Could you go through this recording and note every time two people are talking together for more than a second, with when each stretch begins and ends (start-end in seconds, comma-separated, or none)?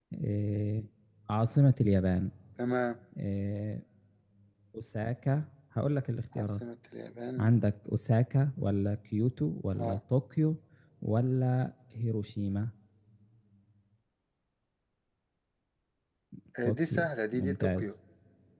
16.6-17.9